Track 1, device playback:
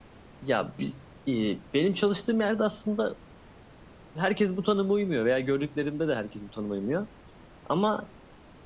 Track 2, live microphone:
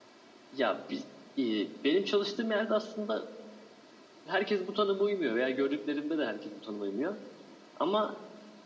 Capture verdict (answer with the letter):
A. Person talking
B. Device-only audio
B